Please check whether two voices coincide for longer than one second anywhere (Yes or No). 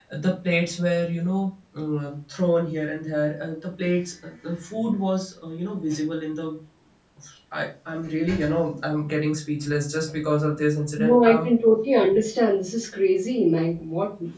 No